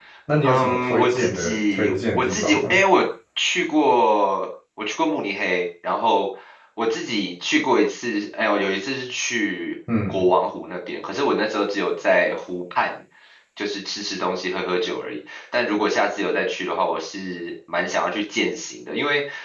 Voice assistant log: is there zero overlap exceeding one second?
No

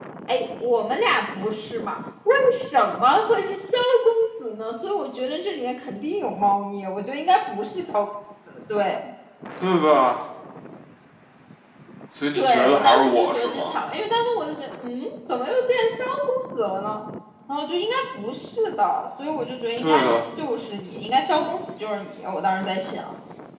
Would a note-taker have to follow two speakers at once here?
Yes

